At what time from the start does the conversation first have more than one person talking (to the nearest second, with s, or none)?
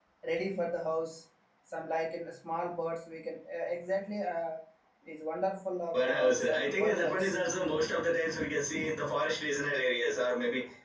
6 s